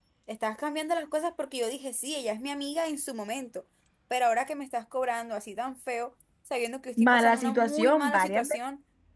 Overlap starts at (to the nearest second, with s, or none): 7 s